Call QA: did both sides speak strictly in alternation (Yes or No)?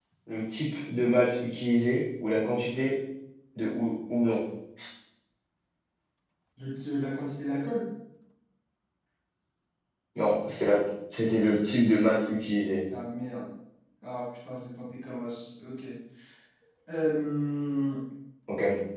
Yes